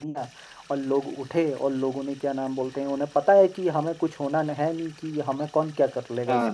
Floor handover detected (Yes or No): No